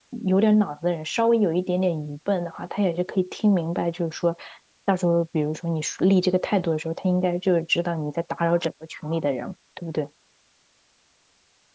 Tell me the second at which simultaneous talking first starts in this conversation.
none

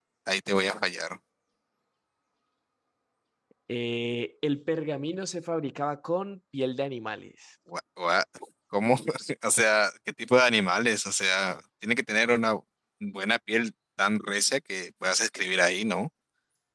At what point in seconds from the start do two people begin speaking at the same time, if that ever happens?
none

